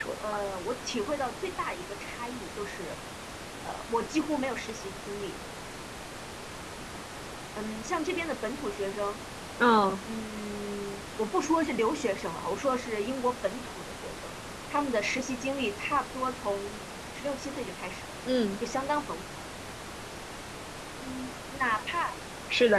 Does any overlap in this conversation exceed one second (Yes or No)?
No